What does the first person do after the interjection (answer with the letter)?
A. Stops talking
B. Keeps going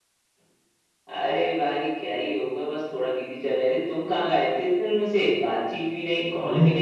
A